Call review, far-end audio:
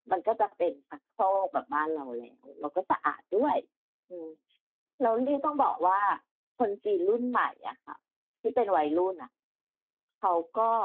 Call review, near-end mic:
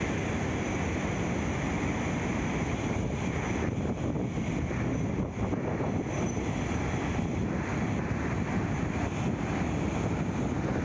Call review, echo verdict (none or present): none